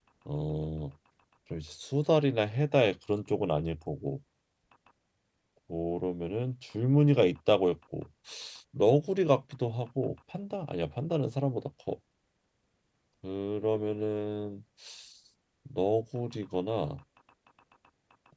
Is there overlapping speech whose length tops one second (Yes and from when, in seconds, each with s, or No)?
No